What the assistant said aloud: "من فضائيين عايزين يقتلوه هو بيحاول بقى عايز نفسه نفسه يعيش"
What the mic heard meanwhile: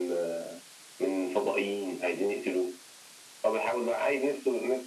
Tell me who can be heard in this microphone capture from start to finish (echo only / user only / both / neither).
echo only